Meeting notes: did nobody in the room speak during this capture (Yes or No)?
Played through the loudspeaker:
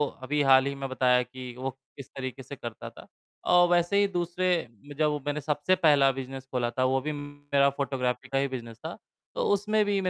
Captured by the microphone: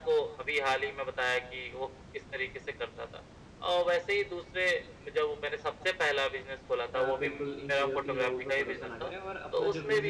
No